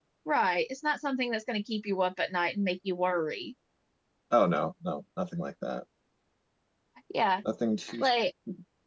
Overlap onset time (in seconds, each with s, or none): none